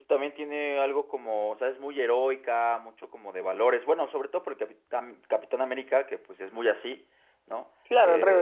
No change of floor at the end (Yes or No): No